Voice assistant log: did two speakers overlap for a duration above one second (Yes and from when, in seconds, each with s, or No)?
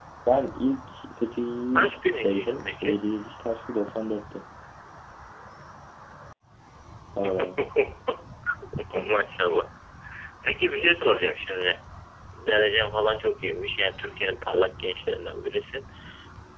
Yes, from 1.8 s